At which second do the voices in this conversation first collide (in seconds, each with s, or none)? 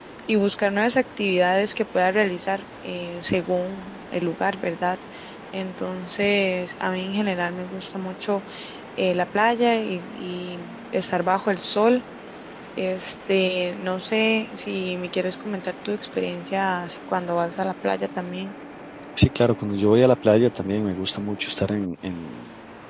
none